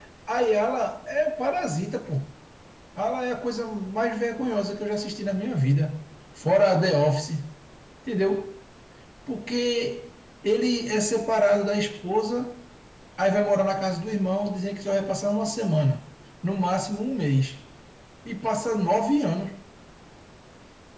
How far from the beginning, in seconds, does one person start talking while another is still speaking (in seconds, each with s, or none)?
none